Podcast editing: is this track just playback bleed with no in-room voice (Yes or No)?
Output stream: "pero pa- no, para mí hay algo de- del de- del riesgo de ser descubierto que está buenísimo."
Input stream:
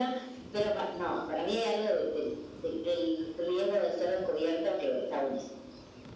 Yes